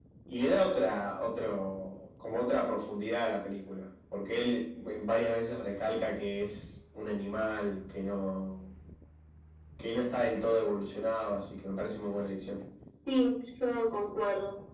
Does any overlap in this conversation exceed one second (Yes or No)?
No